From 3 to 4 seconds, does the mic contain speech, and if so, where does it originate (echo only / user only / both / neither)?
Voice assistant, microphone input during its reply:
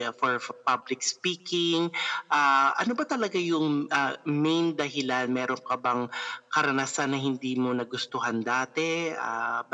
echo only